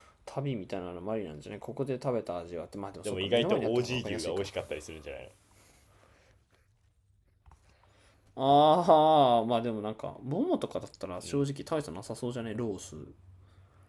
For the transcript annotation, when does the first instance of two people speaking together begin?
3.0 s

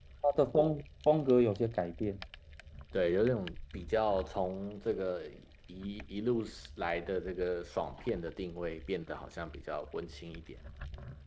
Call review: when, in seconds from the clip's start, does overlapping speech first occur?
none

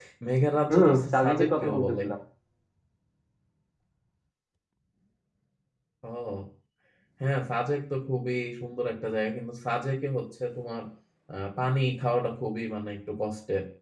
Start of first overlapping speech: 0.7 s

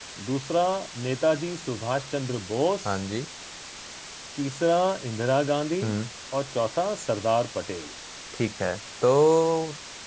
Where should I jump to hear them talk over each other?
none

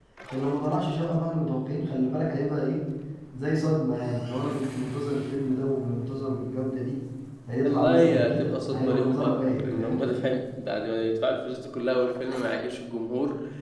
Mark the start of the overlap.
7.6 s

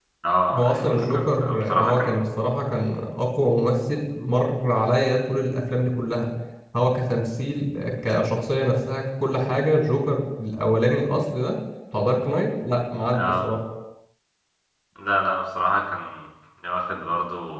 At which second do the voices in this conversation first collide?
0.6 s

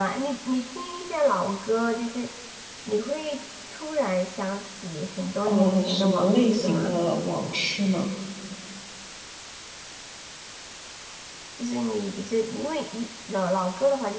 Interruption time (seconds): 5.5 s

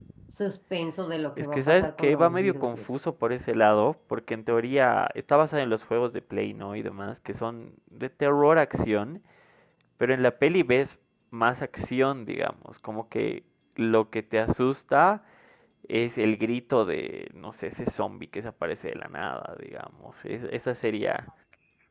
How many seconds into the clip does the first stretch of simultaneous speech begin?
1.4 s

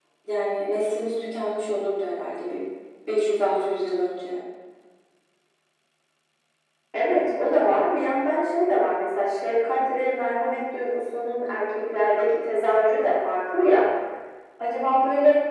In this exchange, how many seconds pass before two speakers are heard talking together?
none

